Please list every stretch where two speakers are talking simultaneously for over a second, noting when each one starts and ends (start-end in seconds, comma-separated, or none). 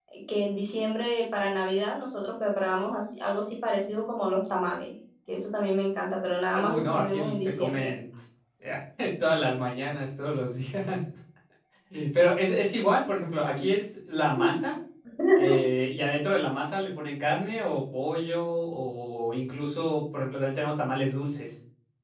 6.5-7.9